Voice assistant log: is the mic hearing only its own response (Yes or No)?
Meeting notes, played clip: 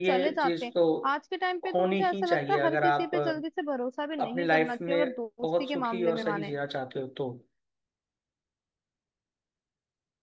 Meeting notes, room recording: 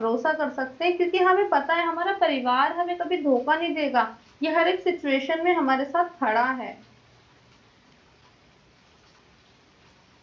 No